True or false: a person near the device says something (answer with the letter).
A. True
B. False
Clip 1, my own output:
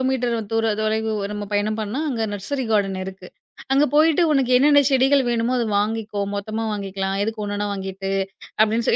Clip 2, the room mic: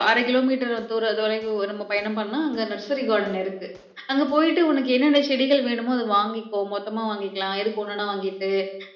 B